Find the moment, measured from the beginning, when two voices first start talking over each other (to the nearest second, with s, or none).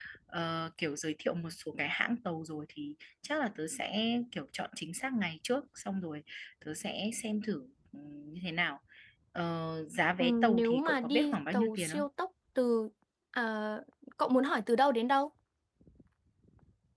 10 s